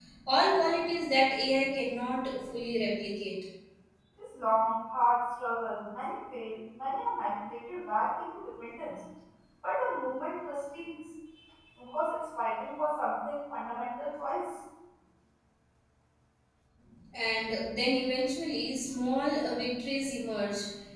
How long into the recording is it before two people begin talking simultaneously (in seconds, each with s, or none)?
none